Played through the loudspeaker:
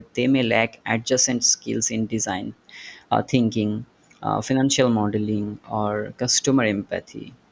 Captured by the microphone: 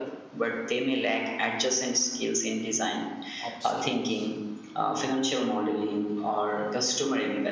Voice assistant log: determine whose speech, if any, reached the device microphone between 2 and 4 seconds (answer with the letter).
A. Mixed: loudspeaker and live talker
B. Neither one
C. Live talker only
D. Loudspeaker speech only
A